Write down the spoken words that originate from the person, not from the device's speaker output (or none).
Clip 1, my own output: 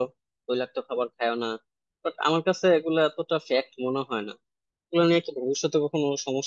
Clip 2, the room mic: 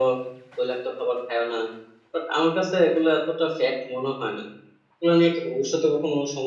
none